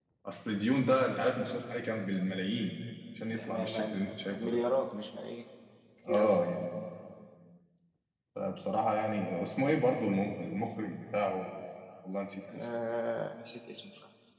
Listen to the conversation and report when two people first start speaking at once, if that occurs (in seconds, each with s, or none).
3.3 s